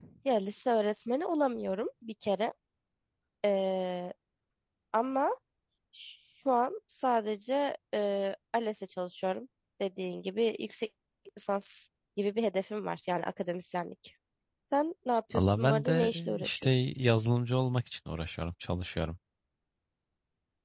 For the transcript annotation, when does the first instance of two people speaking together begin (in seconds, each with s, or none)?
15.3 s